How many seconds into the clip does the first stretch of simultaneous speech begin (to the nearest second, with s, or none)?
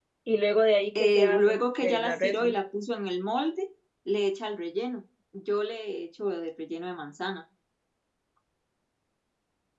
1 s